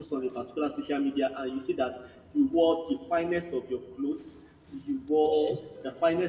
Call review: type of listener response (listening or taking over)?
listening